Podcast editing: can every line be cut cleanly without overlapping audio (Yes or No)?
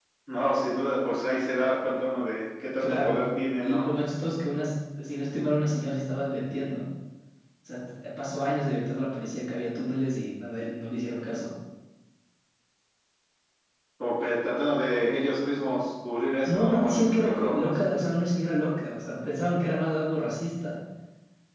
No